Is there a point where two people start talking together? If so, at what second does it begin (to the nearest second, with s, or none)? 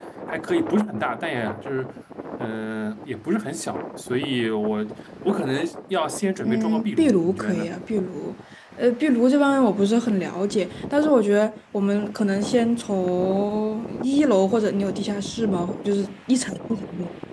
6 s